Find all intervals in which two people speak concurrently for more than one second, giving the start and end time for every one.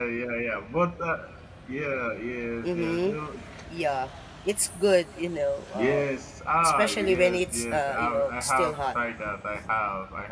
6.6-8.8

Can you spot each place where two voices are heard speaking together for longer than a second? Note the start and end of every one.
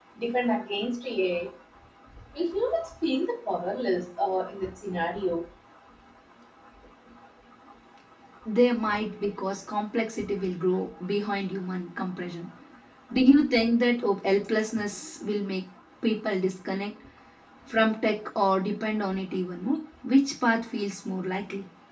none

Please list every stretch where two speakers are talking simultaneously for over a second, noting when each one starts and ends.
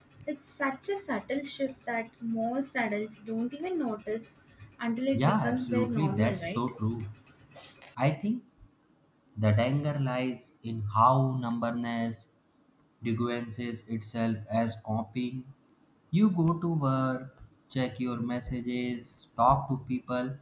5.1-6.6

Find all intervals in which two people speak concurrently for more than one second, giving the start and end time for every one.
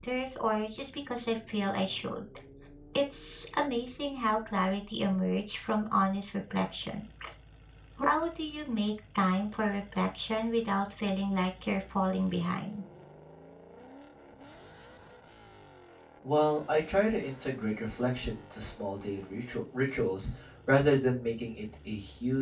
none

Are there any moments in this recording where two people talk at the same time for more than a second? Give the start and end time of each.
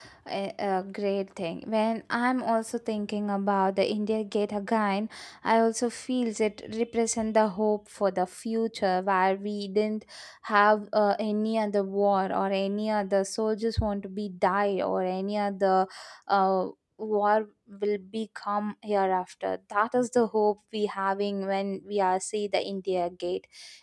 none

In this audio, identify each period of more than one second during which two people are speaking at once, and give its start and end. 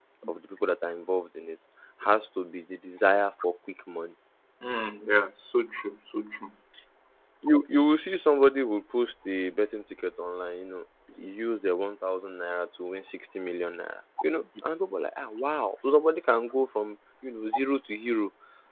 none

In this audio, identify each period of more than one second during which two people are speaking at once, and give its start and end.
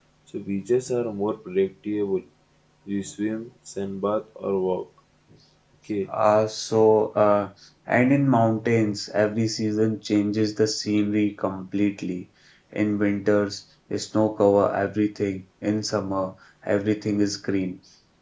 none

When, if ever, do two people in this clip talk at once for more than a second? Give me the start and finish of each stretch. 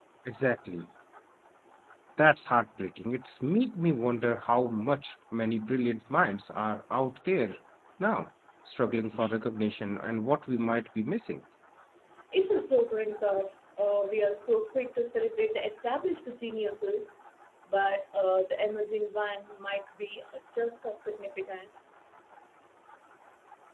none

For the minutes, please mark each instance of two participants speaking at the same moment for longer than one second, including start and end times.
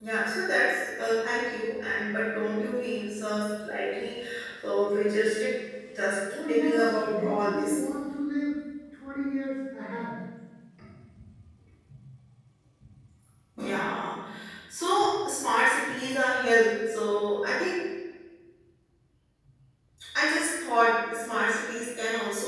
6.5-7.8

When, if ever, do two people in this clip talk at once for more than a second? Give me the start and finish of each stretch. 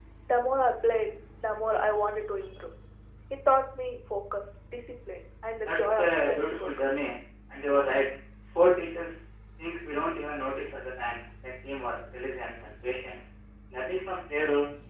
5.6-7.0

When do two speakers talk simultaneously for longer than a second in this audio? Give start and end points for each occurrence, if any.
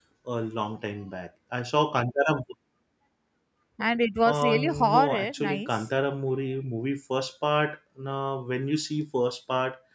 4.2-5.8

